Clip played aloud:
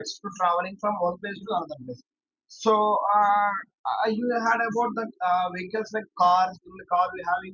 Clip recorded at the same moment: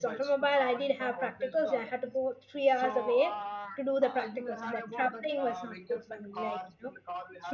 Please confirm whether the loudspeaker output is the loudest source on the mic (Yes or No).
No